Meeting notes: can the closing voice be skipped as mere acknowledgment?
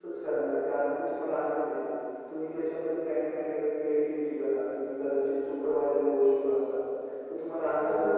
Yes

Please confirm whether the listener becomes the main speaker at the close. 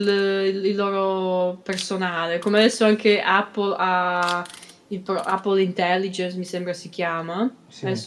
No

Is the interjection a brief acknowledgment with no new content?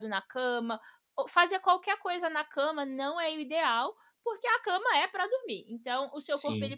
Yes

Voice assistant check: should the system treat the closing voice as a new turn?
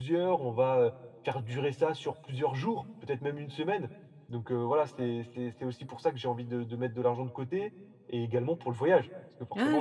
Yes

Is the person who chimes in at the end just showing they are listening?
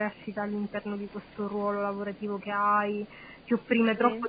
Yes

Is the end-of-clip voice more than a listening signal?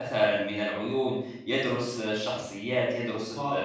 Yes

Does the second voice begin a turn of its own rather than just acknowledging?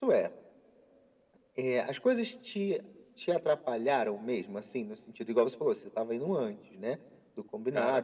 No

